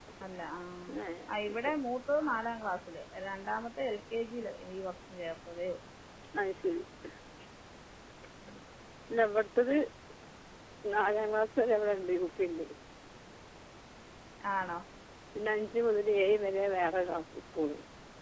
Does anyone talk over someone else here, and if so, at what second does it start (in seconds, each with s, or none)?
none